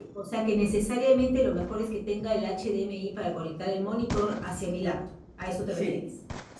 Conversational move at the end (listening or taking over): taking over